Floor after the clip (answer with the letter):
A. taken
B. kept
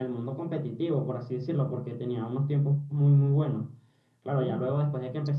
B